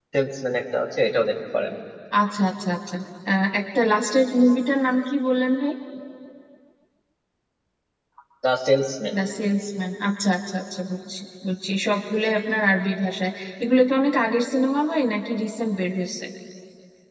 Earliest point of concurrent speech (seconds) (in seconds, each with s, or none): none